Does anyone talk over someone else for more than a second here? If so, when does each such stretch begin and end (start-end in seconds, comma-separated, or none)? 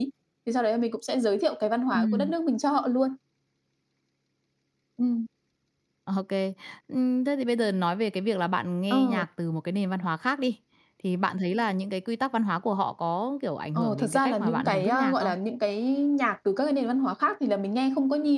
13.8-15.3